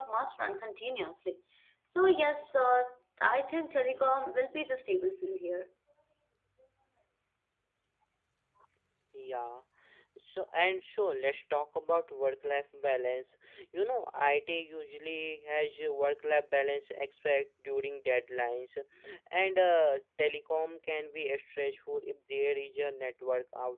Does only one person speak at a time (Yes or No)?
Yes